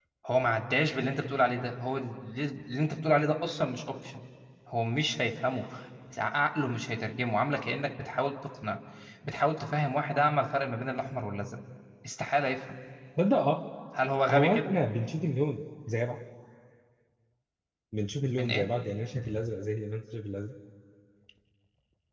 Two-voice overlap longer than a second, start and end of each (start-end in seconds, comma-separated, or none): none